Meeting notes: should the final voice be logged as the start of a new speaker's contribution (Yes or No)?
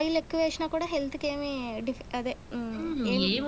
Yes